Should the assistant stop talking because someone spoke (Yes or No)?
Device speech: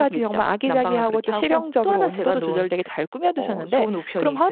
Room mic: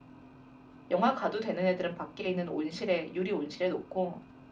Yes